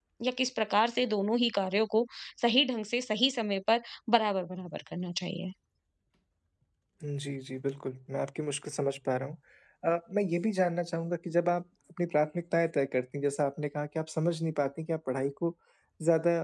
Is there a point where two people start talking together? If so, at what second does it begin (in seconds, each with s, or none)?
none